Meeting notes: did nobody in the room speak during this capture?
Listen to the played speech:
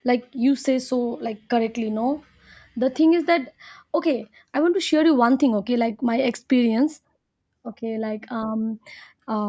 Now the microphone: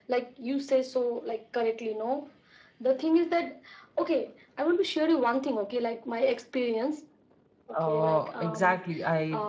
No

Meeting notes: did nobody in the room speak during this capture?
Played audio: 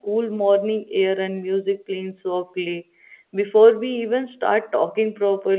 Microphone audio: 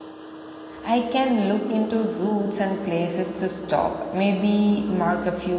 No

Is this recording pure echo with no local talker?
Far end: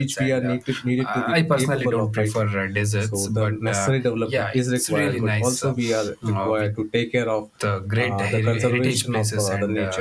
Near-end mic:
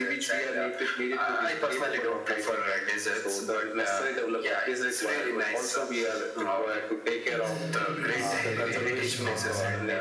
No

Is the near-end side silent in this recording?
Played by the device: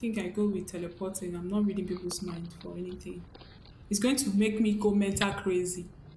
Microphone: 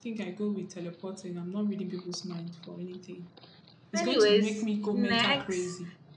No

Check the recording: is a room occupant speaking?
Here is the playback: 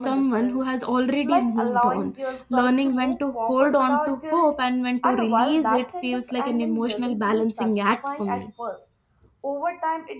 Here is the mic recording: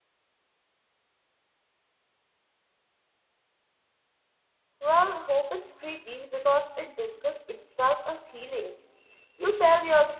Yes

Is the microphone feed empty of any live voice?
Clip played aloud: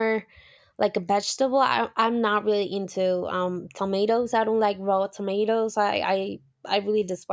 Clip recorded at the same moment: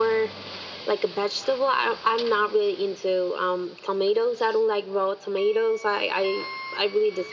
Yes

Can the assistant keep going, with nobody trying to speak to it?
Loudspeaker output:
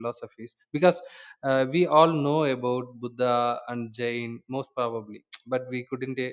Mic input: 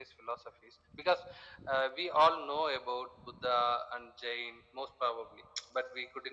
Yes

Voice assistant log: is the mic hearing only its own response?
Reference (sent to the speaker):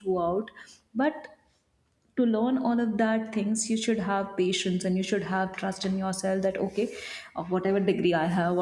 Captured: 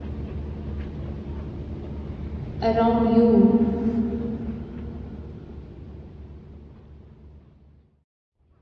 No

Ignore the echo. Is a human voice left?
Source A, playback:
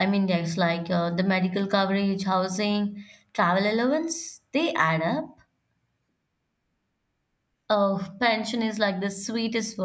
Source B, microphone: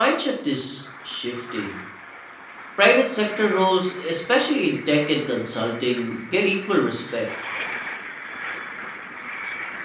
Yes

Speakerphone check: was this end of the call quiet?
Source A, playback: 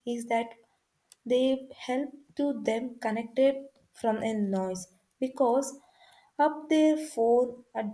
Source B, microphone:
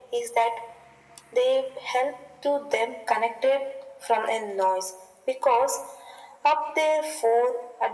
Yes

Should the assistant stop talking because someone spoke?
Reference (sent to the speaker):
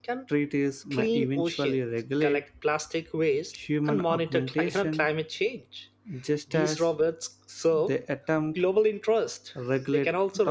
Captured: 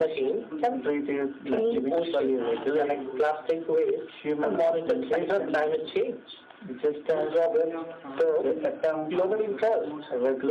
Yes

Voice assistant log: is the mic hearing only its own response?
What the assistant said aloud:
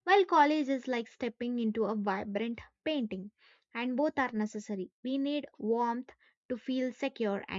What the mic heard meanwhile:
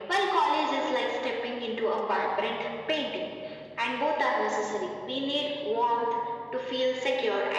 Yes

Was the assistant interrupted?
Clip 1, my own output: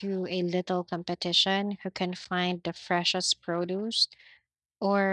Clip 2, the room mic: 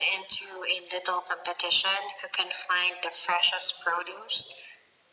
No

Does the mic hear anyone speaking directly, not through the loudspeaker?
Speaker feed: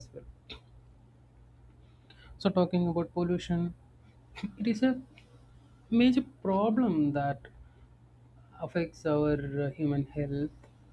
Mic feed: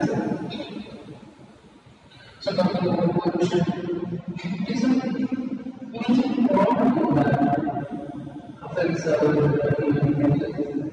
No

